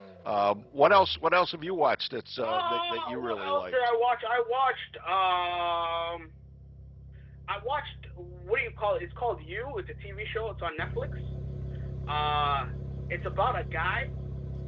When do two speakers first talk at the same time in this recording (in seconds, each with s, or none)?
2.4 s